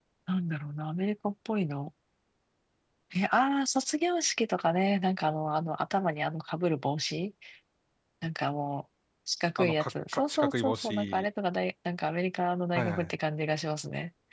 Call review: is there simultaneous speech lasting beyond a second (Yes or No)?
Yes